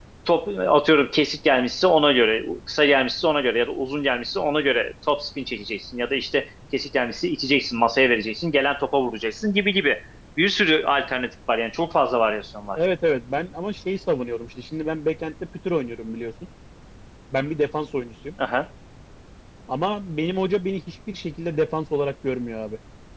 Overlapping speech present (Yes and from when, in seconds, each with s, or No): No